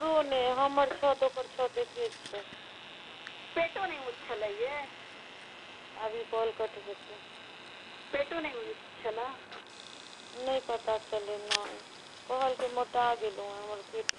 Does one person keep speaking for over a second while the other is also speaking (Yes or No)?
No